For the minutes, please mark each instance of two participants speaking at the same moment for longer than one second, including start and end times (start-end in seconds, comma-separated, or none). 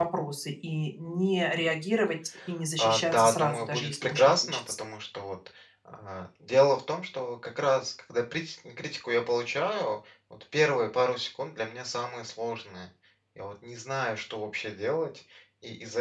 2.8-4.6